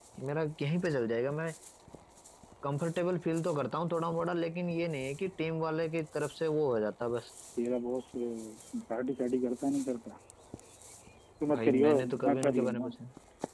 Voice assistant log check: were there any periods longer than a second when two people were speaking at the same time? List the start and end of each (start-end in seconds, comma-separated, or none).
11.6-12.8